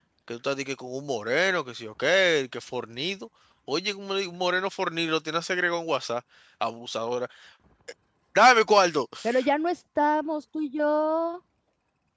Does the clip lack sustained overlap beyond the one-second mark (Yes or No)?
Yes